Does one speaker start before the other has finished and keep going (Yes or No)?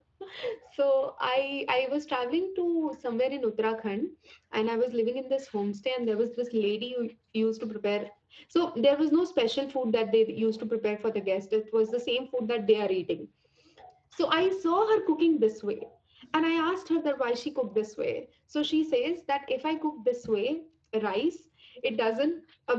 No